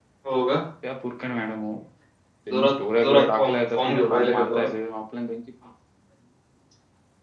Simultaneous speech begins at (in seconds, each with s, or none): 2.5 s